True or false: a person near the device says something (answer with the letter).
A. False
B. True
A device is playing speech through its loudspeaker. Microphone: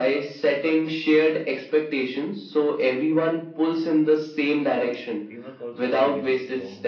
B